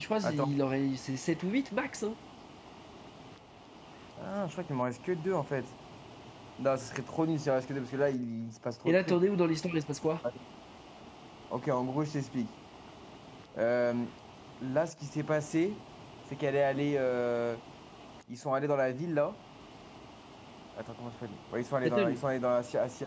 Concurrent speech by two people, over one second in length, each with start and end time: none

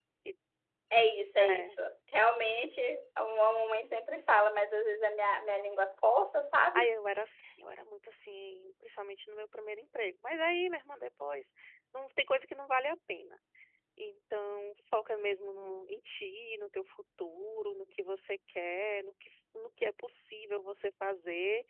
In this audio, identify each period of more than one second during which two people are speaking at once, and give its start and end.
none

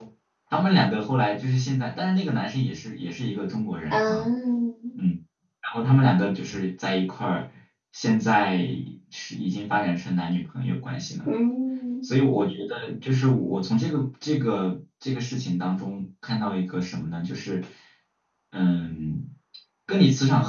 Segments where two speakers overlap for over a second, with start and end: none

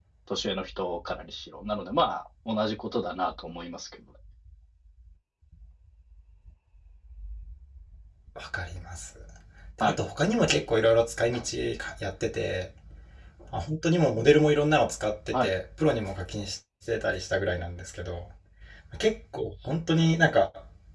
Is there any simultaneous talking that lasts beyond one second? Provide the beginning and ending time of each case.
none

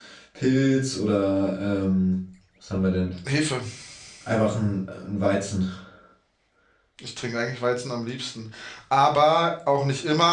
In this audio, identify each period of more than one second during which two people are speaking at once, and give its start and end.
none

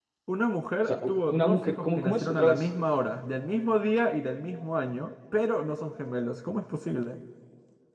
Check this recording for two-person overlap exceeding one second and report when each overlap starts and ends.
0.9-2.7

